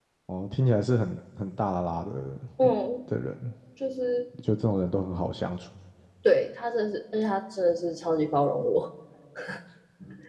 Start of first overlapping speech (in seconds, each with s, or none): none